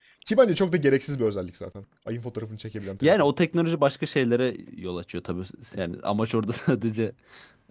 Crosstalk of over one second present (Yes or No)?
No